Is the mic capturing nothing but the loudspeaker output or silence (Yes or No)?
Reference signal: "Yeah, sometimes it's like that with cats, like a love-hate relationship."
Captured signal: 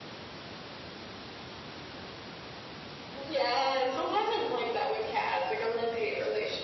Yes